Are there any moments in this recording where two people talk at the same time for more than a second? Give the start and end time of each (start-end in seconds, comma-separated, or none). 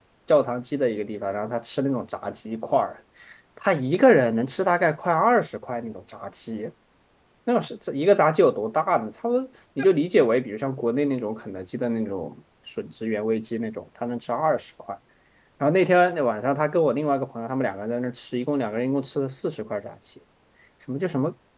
none